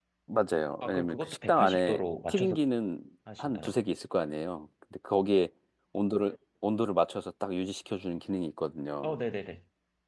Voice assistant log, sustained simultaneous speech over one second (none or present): present